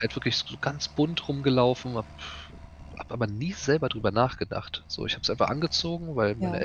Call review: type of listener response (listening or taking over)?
listening